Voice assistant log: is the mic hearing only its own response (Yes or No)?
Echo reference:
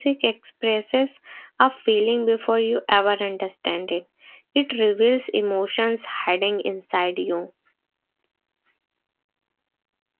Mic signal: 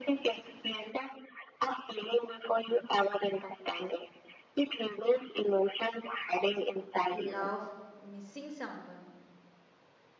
No